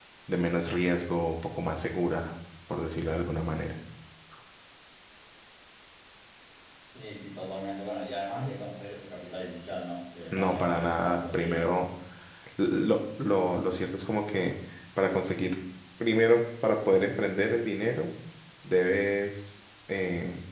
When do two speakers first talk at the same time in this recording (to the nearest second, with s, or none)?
10 s